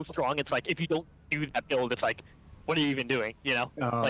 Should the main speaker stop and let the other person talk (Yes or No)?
Yes